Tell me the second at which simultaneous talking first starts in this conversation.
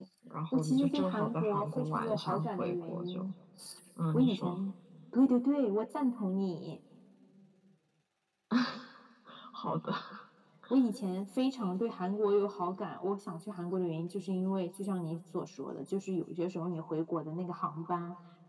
0.5 s

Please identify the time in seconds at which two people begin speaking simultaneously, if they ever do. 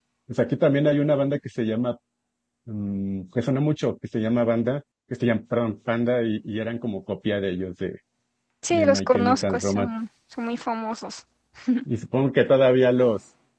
8.7 s

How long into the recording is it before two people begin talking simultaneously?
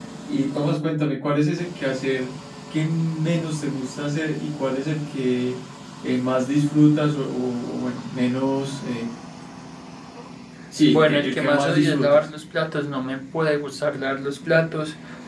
10.9 s

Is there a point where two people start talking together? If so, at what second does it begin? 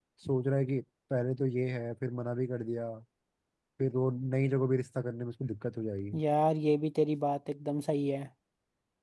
none

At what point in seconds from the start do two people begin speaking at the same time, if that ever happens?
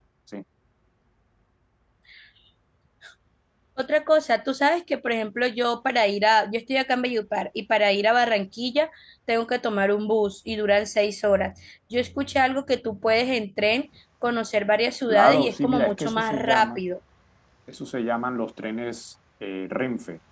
15.1 s

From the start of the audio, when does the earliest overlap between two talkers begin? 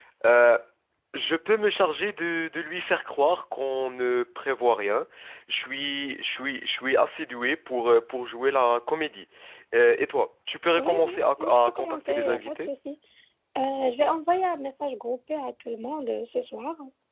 10.8 s

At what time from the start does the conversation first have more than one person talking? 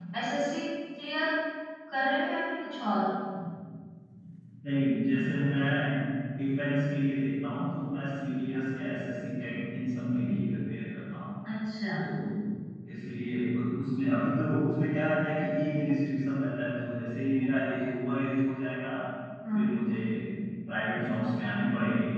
none

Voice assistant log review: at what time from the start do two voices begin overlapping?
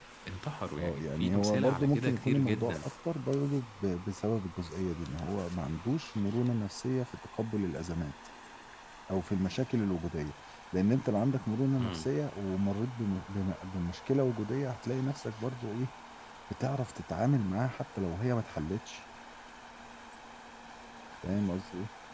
0.8 s

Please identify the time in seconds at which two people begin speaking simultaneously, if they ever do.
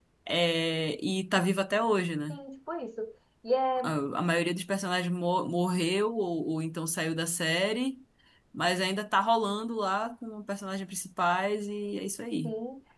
none

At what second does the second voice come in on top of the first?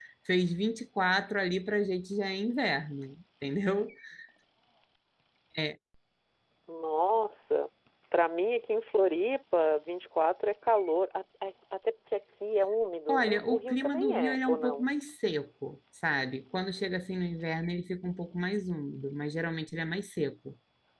13.1 s

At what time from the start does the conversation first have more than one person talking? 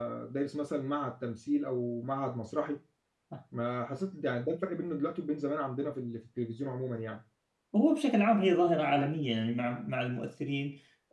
none

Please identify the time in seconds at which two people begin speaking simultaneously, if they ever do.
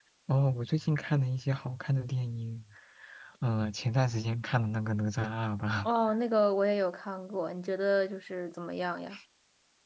none

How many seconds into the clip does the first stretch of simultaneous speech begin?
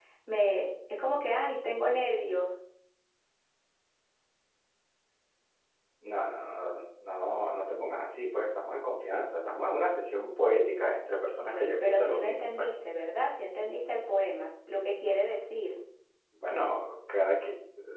11.4 s

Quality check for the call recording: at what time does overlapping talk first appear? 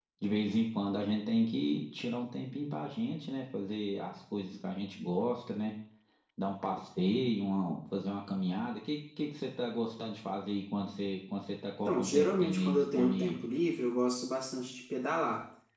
11.8 s

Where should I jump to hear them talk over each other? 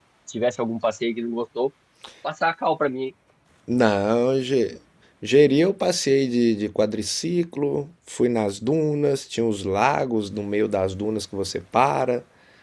none

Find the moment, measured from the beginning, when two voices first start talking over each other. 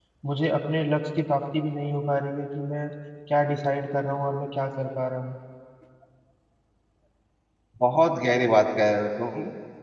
none

